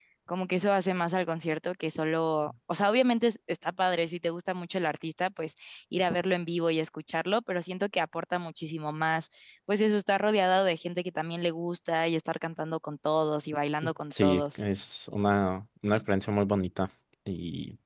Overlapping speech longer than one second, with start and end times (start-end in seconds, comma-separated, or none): none